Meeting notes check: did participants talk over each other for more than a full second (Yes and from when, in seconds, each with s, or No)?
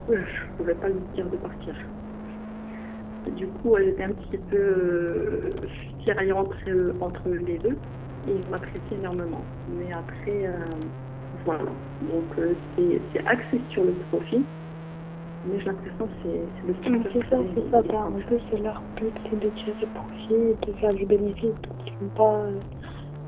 Yes, from 16.8 s